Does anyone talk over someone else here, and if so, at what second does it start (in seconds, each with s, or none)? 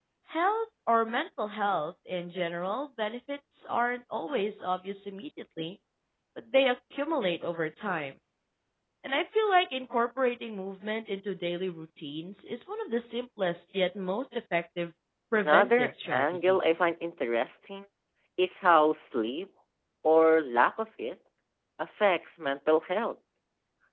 15.4 s